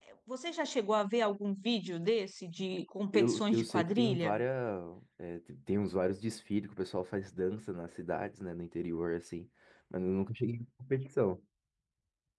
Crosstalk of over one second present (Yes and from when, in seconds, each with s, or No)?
Yes, from 3.1 s